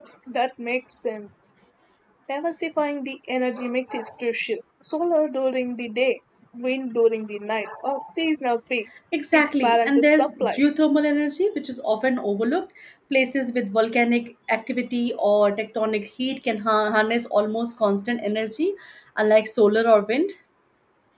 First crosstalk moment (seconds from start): 9.1 s

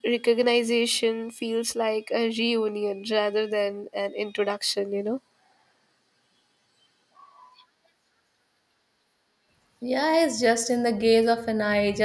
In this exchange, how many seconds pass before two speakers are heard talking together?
none

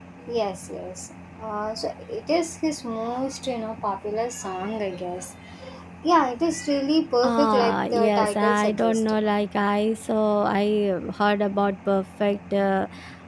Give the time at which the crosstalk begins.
7.2 s

